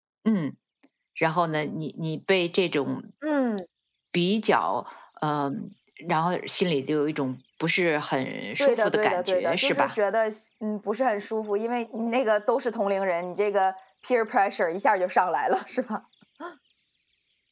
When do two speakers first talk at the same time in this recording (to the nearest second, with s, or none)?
9 s